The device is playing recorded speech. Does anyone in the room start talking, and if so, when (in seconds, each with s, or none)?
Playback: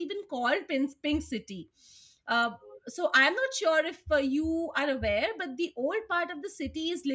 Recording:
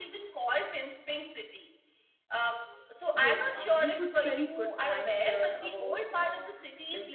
3.1 s